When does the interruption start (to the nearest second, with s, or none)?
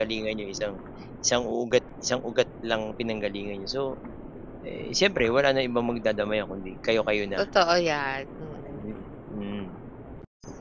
none